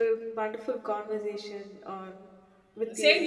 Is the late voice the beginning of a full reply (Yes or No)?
Yes